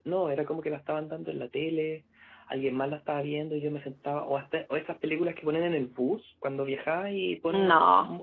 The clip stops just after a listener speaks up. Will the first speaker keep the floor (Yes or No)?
Yes